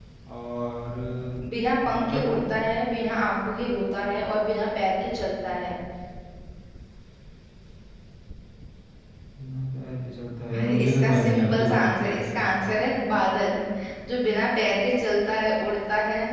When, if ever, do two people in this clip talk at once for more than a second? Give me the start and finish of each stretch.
10.5-12.6

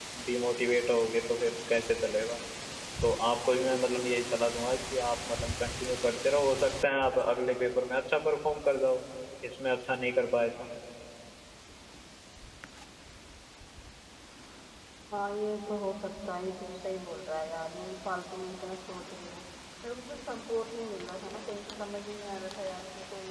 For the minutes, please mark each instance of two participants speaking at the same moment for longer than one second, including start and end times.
none

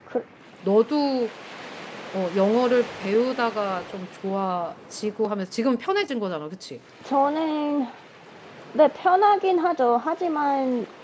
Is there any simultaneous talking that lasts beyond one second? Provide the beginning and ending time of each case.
none

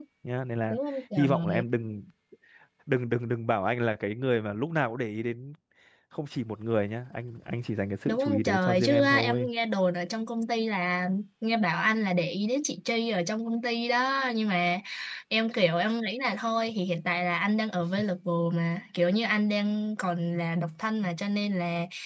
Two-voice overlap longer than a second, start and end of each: 8.1-9.5

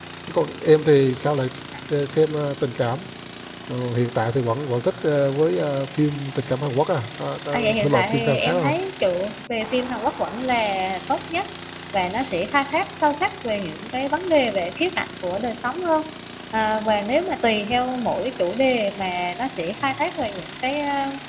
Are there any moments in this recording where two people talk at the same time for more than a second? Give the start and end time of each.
7.5-8.8

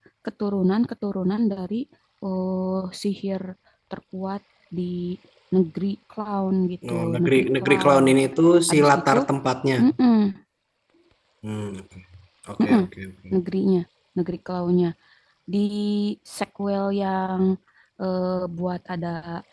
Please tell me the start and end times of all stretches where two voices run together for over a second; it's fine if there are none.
6.9-8.1

